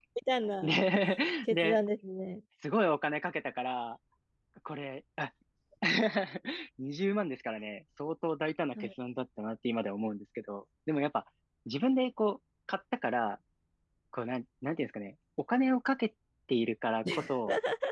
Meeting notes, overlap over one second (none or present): none